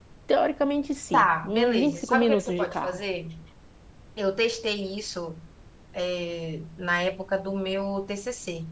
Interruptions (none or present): present